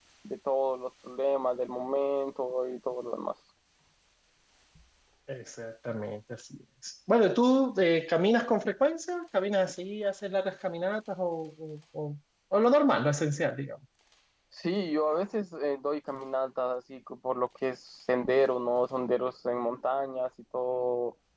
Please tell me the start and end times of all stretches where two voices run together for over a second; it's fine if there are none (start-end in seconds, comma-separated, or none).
none